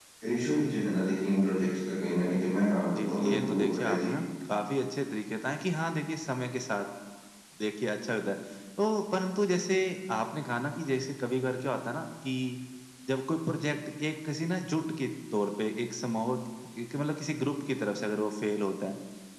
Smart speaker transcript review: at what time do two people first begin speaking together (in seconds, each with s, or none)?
3.0 s